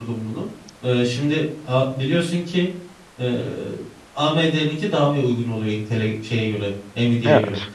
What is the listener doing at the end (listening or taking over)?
listening